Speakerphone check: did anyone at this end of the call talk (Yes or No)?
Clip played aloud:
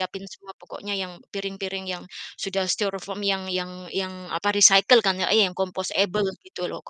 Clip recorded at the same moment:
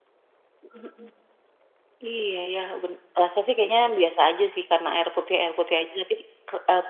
Yes